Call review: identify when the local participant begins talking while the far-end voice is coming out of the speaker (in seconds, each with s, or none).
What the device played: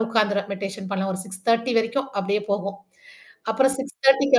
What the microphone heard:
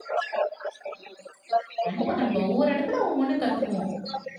1.9 s